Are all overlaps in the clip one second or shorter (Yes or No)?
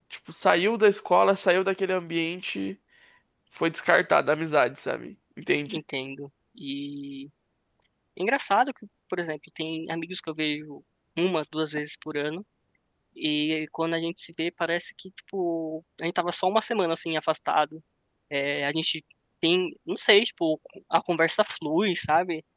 Yes